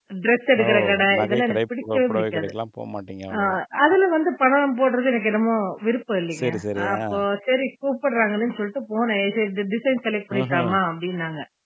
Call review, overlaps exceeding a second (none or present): present